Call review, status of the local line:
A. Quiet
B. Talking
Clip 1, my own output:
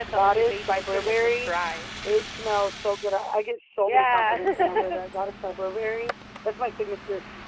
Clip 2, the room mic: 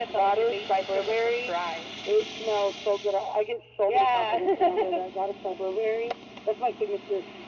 A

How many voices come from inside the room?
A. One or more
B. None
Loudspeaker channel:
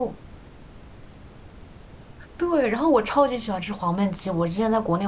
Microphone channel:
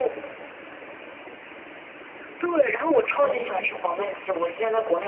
A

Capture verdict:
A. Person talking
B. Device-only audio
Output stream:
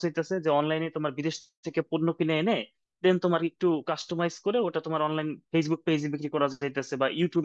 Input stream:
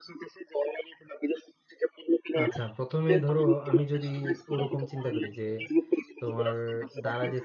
A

